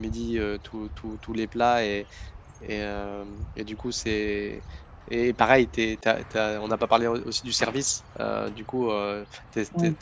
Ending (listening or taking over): listening